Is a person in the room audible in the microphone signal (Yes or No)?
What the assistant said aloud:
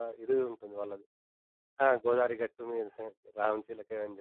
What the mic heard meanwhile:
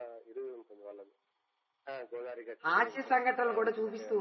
Yes